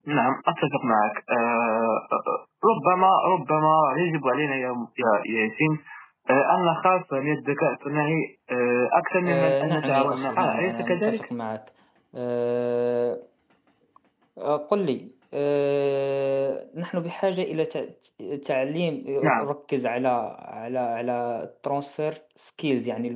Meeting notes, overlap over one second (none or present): present